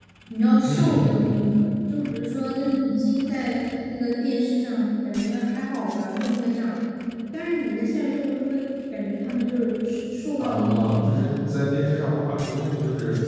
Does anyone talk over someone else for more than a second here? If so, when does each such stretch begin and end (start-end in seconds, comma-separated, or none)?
10.4-11.6